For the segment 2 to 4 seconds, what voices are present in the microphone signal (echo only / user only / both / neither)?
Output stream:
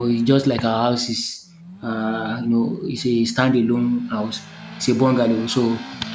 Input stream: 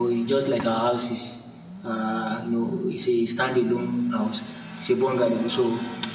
echo only